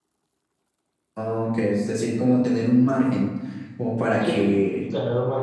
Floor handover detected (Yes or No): Yes